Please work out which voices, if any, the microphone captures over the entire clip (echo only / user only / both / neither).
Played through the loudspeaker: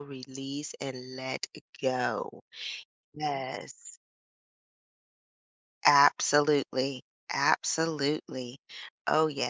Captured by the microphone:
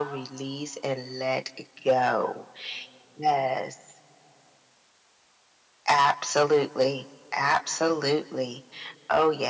echo only